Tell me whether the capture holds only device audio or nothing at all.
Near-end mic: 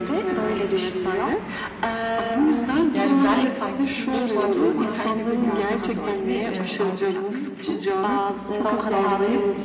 No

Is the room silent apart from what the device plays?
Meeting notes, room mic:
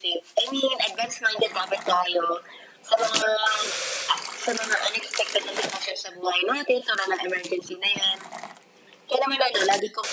Yes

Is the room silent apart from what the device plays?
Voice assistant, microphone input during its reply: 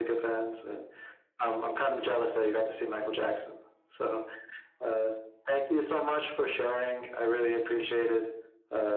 Yes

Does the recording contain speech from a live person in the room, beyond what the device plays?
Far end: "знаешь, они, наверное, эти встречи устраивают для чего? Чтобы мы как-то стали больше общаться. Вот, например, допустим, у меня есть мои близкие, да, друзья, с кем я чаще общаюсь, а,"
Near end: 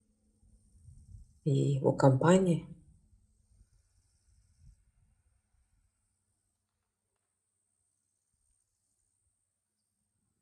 Yes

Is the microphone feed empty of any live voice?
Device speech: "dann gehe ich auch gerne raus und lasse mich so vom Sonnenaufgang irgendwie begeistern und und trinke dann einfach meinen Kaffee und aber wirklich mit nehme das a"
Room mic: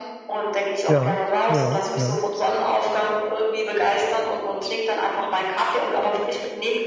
No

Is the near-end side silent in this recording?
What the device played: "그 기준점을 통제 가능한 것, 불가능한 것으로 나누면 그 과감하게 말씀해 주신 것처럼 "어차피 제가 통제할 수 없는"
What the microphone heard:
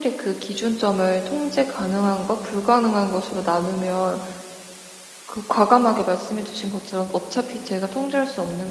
Yes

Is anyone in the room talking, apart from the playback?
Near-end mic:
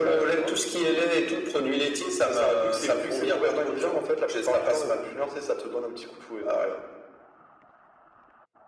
No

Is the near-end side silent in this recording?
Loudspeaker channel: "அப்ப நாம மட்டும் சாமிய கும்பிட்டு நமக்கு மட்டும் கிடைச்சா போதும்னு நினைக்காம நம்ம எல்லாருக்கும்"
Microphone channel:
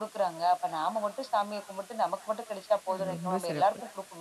No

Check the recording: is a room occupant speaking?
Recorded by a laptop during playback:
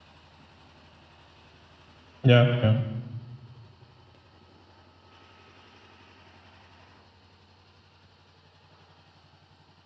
Yes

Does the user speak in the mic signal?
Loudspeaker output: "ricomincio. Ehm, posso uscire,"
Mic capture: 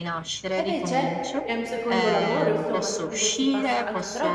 Yes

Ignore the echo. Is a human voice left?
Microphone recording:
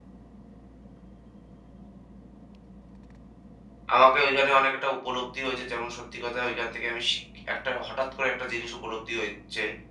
Yes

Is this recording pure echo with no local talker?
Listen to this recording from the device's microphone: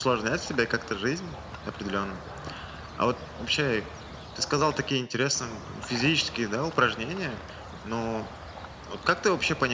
Yes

